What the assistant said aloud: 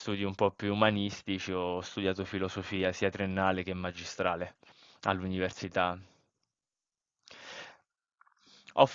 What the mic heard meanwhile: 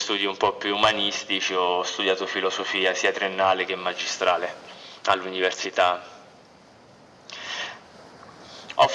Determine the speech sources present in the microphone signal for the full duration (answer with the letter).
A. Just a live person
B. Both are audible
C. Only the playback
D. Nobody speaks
C